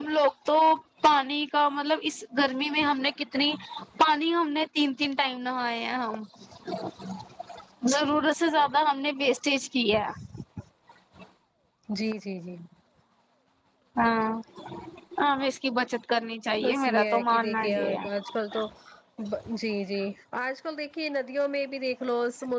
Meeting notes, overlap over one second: present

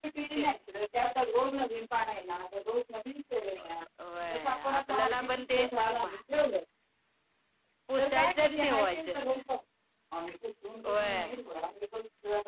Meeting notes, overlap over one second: present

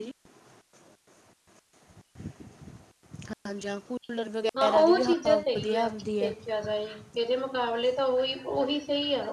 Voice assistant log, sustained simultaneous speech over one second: present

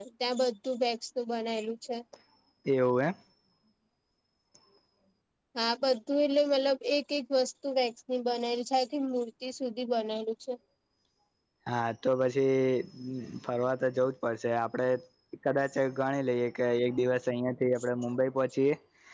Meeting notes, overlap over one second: none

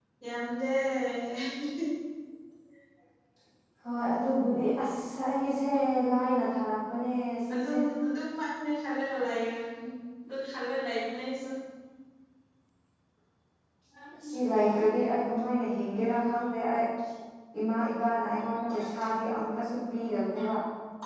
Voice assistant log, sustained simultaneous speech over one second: none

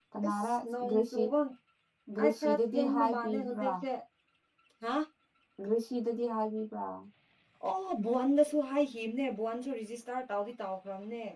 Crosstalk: present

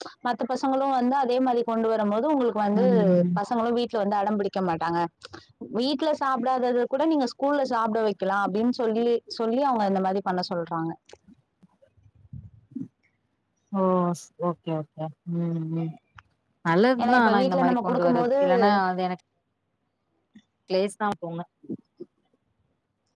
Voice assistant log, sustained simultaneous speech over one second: present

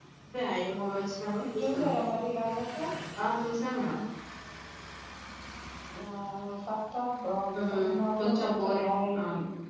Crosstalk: present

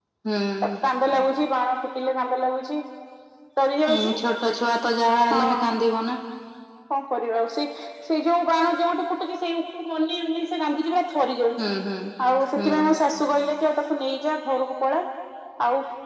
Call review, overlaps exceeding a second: none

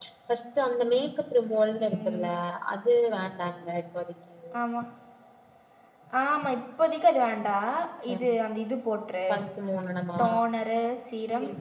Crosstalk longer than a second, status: none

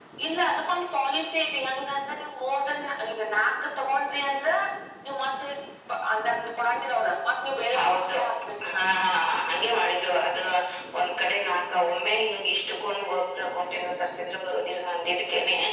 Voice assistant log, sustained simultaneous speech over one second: none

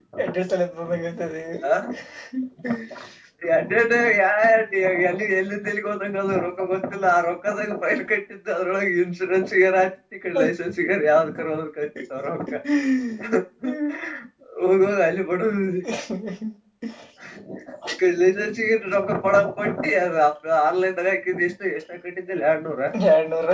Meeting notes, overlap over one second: none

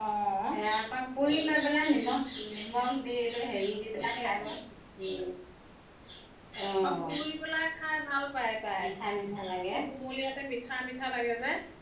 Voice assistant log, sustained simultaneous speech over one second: none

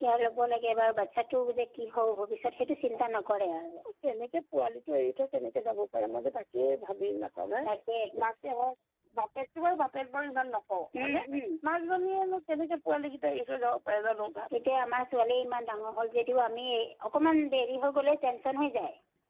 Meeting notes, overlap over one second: none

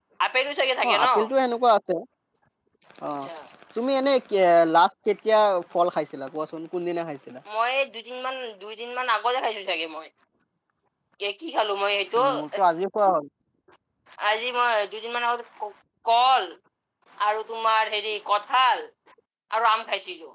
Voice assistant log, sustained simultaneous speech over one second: none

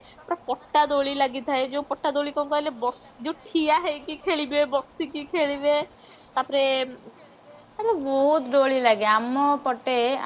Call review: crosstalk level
none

